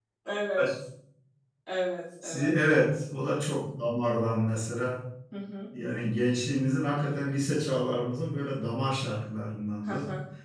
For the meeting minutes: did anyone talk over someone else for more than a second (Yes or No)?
No